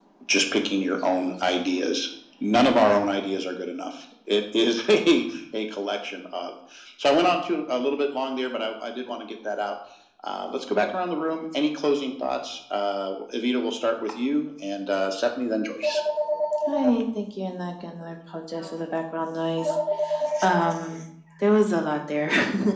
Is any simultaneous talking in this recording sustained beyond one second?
No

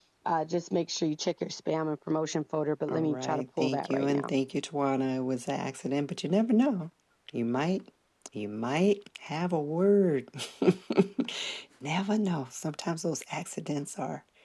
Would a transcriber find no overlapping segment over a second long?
No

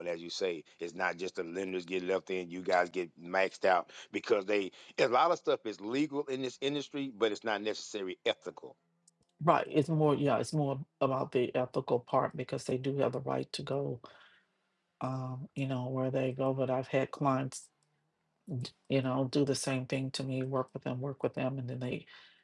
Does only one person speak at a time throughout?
Yes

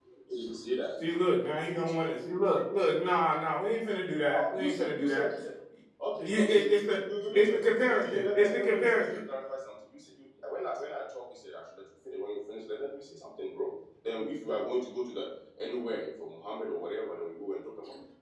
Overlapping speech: Yes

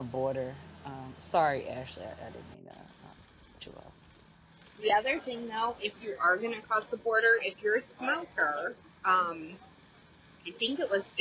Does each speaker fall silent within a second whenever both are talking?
Yes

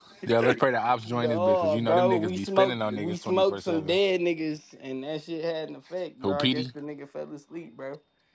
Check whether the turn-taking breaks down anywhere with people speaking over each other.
Yes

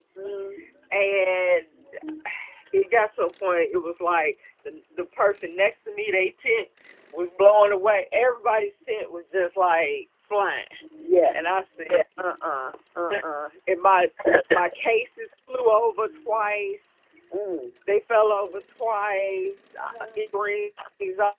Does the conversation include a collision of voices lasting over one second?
No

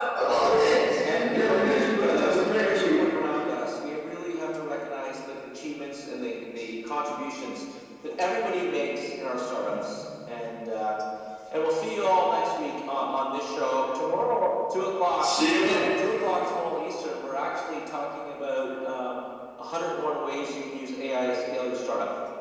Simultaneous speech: Yes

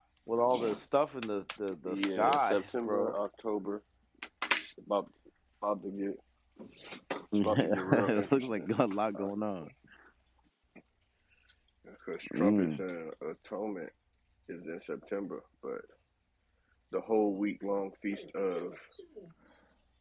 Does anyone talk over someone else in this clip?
Yes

